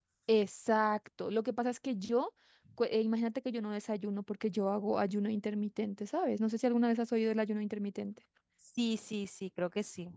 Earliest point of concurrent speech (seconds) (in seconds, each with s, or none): none